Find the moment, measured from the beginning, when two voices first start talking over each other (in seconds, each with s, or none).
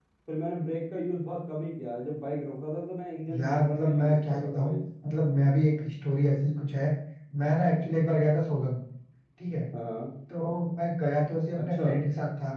3.4 s